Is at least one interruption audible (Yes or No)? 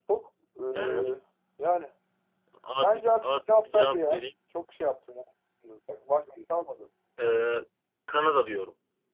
Yes